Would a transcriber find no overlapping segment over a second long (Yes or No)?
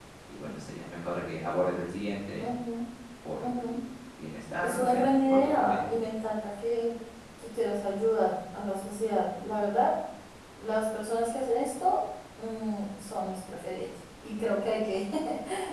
No